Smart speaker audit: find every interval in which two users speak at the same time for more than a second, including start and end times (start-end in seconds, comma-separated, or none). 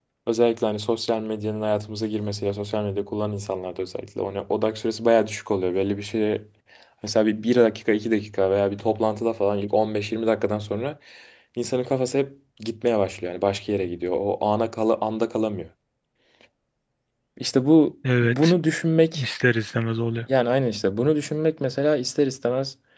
none